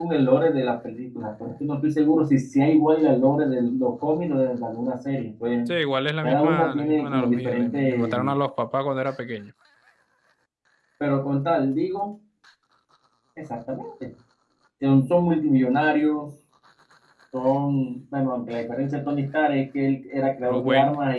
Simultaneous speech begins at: 6.2 s

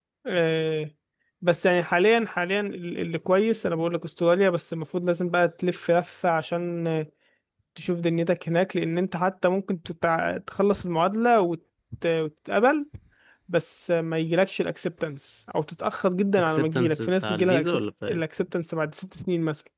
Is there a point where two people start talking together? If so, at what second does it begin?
16.4 s

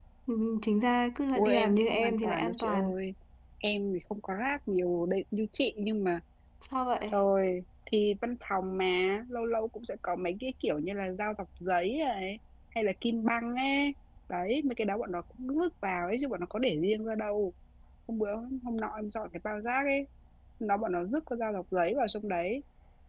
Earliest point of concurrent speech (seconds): 1.4 s

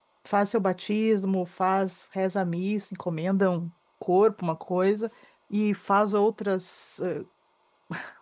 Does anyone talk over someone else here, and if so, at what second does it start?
none

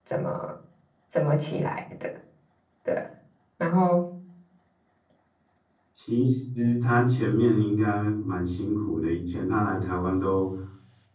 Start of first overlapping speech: none

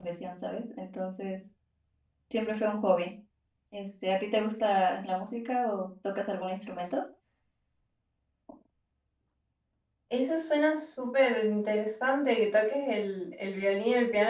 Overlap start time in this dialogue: none

